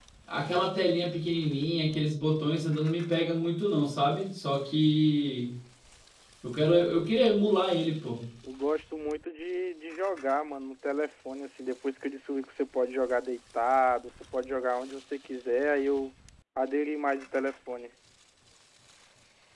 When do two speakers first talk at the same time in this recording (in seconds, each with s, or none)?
none